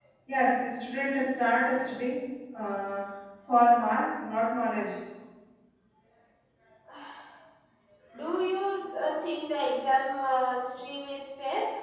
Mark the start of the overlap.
none

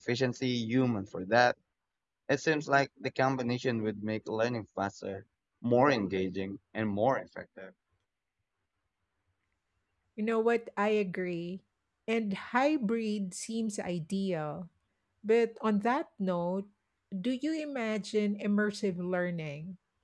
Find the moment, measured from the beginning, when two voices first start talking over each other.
none

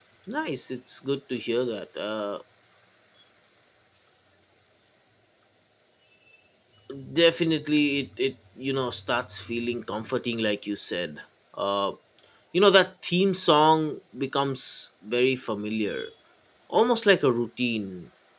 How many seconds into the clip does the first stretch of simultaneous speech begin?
none

